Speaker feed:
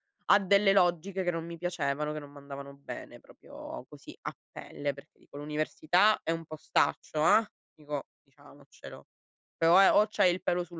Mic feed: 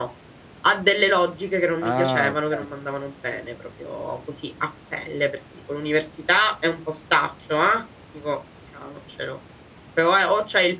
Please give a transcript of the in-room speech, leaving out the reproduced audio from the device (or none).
Ah, okay.